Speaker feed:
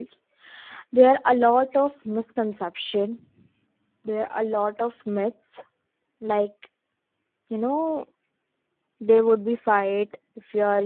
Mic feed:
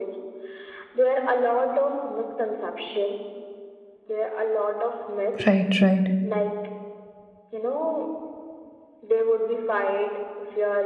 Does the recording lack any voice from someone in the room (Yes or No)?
No